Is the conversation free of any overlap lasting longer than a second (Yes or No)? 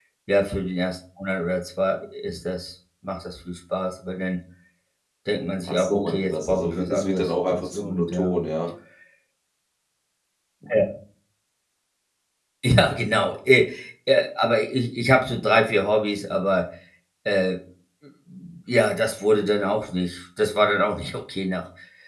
No